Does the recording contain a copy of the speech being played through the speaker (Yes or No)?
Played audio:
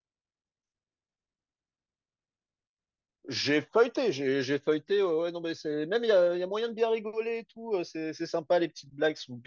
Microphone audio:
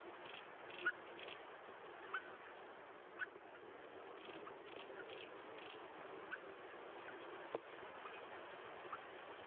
No